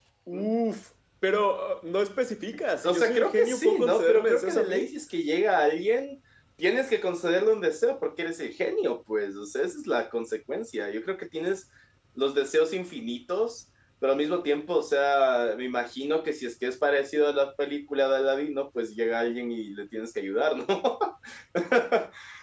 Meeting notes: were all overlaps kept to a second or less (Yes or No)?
No